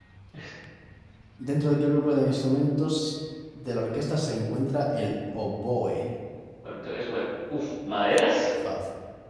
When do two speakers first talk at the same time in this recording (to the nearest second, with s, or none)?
none